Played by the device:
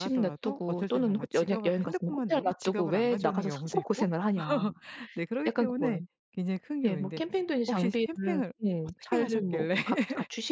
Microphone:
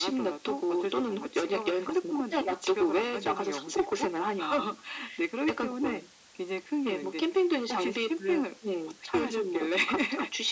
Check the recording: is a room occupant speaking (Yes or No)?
No